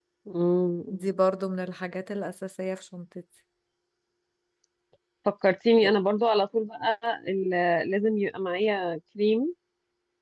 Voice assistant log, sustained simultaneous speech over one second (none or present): none